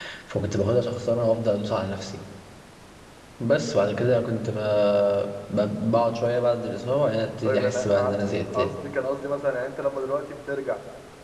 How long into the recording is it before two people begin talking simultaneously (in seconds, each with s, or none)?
7.4 s